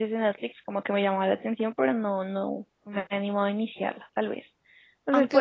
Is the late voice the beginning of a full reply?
No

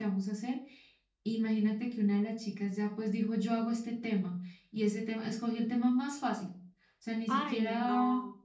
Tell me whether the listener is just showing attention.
No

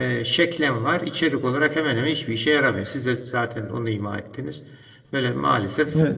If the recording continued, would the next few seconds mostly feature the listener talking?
Yes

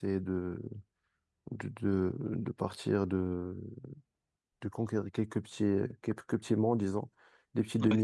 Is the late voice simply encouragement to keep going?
Yes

